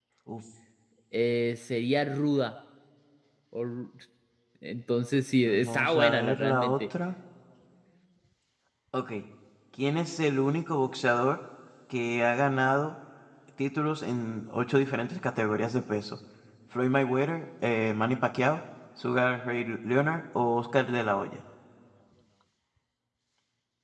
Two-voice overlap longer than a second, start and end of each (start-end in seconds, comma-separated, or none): 5.5-6.7